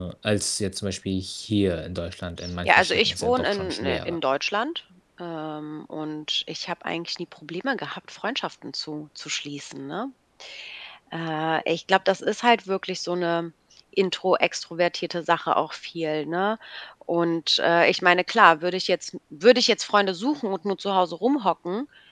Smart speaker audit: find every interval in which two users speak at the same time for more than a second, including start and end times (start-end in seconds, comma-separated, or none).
2.6-4.2